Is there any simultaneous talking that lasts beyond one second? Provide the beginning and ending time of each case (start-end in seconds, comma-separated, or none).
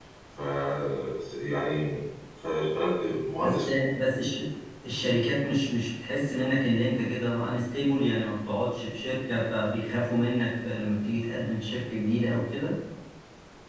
none